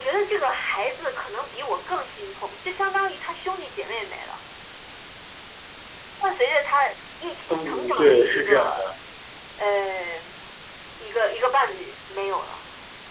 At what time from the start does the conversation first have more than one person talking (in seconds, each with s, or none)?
7.5 s